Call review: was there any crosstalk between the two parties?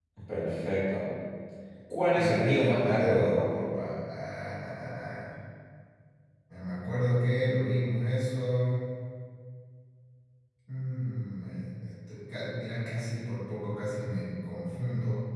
Yes, from 2.2 s

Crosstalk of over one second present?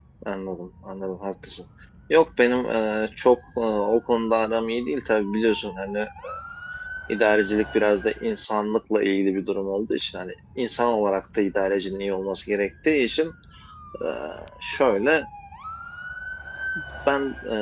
No

